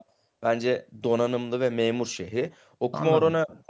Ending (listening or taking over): listening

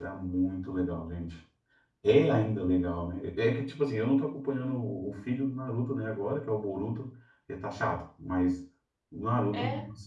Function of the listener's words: listening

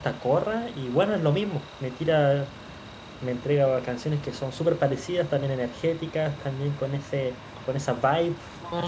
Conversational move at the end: taking over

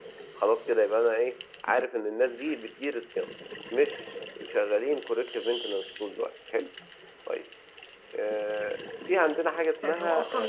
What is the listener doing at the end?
taking over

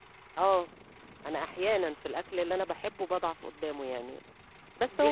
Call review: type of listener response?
listening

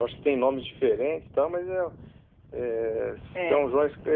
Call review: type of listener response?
listening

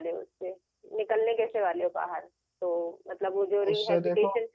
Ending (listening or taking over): listening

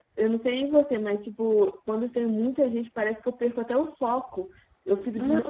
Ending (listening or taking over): taking over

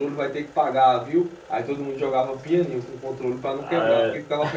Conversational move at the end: listening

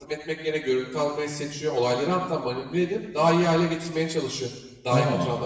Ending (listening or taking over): listening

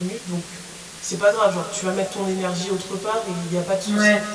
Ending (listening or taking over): listening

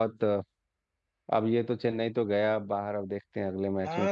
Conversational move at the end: taking over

